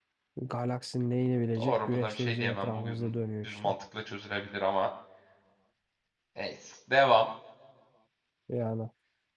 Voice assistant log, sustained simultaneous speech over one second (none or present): present